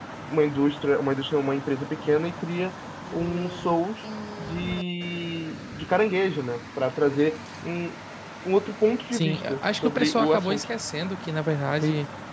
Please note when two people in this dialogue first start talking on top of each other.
9 s

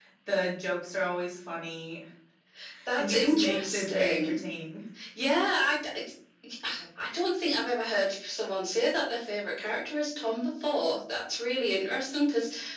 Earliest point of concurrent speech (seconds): 3 s

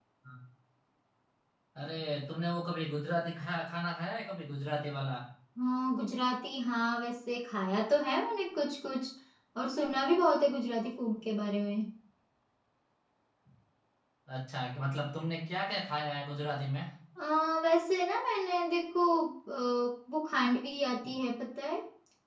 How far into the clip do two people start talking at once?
none

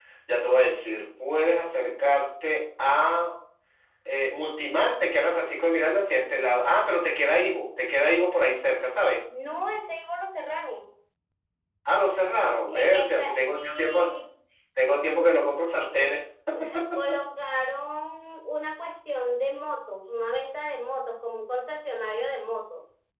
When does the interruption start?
13 s

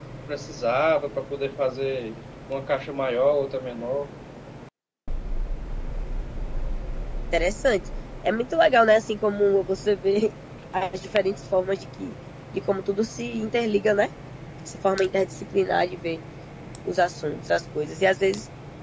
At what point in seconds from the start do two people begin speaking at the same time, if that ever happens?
none

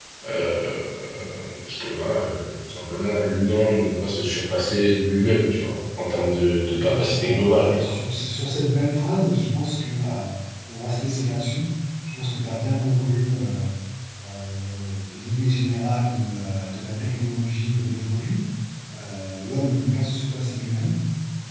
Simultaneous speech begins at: 7 s

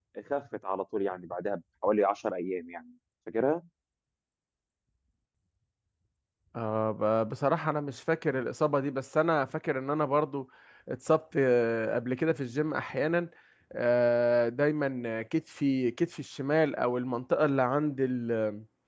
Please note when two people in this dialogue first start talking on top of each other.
none

